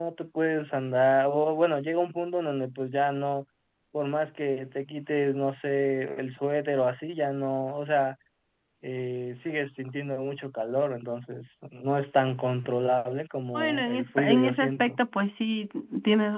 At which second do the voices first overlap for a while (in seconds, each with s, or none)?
13.5 s